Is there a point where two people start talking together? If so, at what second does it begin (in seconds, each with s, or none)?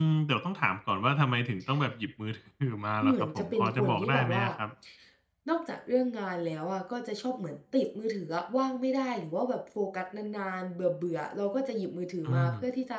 3.0 s